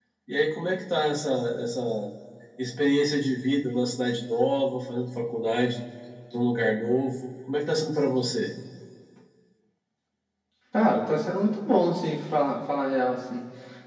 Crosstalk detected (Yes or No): No